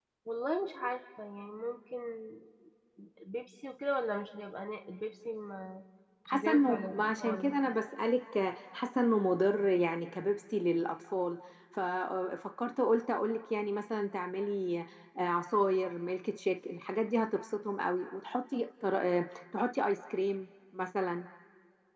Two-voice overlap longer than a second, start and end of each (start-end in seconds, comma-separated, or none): 6.3-7.6